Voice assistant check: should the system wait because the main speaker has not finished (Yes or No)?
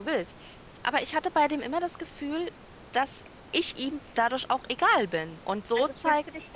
No